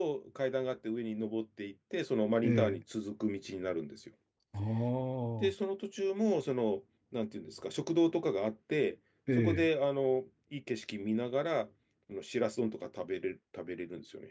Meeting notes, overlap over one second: none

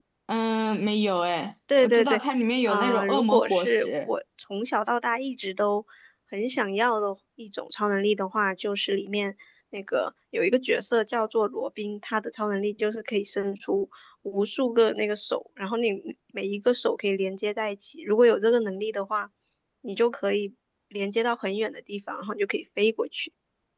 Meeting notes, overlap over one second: present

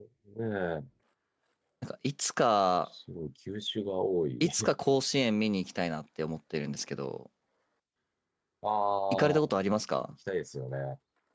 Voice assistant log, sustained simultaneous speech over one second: none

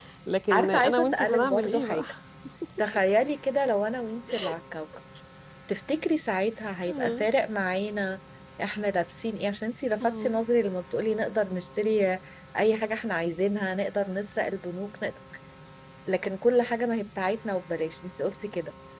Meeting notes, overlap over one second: present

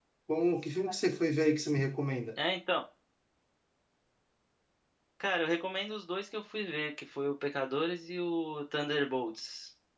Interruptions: none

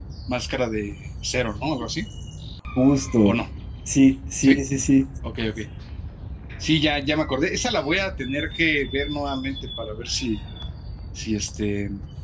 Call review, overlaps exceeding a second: none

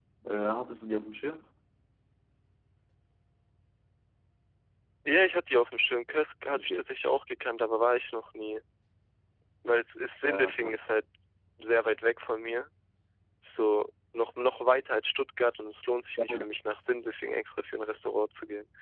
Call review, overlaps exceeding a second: none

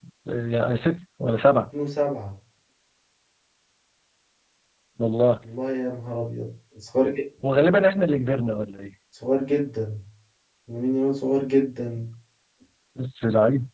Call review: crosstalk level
none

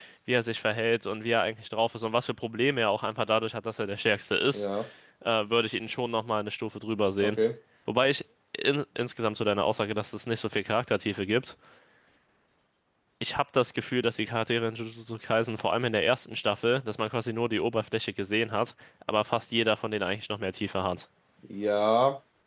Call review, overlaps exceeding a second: none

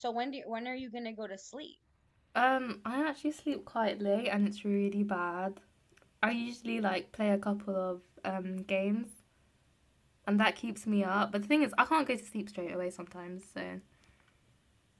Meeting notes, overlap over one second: none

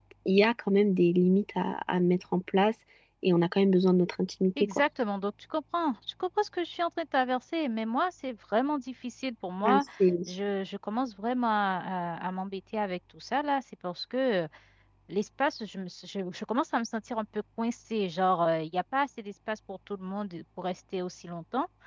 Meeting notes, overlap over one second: none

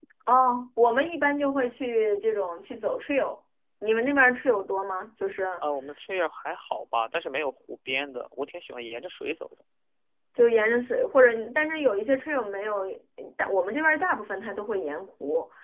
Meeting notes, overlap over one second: none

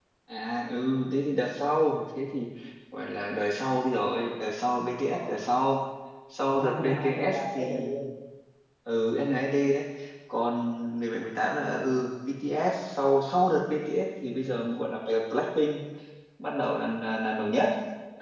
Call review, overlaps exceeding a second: present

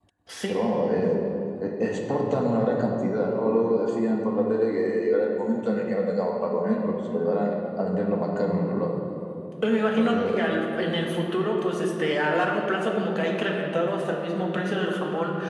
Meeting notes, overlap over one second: none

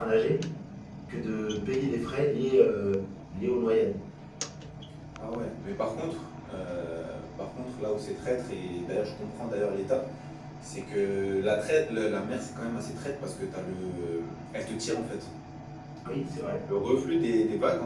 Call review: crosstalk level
none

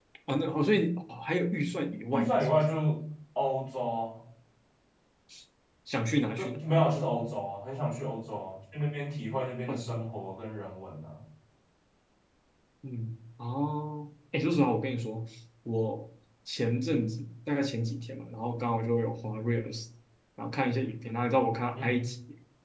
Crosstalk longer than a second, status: none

